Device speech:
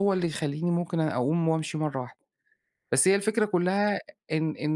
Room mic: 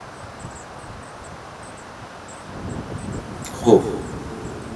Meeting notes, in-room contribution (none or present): present